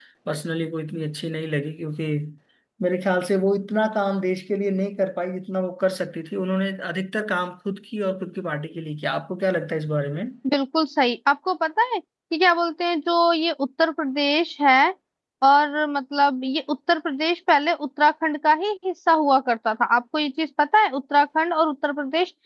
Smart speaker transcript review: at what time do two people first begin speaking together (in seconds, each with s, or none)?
none